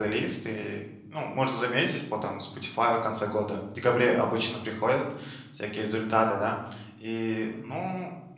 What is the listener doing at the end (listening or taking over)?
listening